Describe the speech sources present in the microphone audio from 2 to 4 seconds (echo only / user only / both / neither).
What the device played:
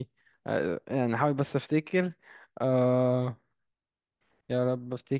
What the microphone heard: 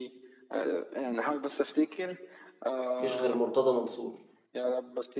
both